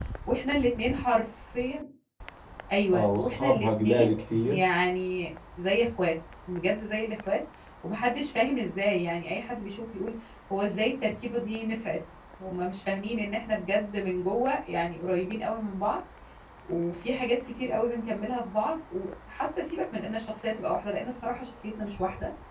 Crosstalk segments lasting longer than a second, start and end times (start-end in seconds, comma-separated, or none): 2.9-4.6